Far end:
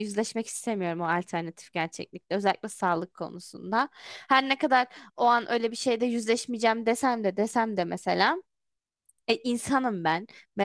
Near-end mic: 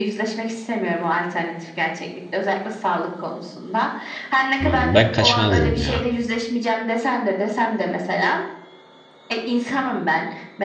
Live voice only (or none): Hmm, ben kaçmazdım ya.